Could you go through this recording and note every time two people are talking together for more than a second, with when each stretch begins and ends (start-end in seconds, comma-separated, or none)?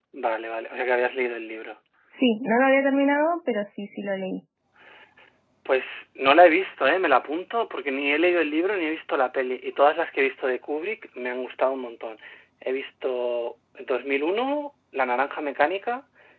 none